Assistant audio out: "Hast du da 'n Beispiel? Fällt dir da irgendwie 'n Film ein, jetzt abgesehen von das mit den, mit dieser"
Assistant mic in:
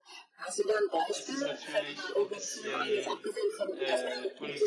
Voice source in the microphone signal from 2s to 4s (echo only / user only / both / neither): both